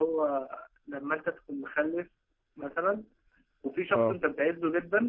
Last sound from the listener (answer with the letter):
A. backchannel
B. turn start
A